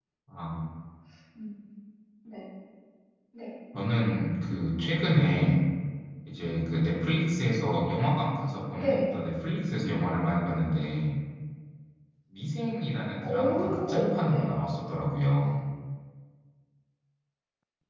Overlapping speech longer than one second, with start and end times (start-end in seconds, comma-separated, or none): 13.3-14.5